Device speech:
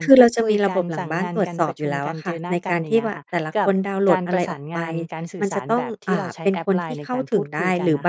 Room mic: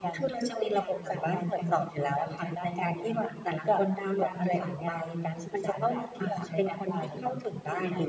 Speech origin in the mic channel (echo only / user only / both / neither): echo only